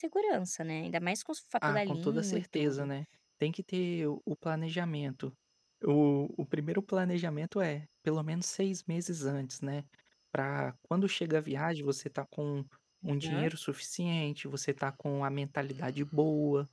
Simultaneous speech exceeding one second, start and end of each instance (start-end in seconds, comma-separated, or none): 1.7-2.9